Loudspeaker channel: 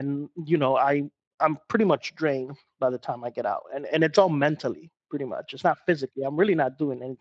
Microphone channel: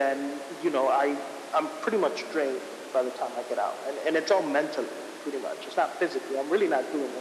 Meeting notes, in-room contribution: none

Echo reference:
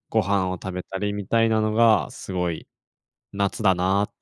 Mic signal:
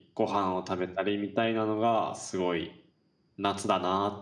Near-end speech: none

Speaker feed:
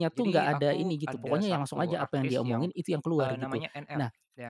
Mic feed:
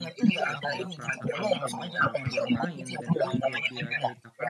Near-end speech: present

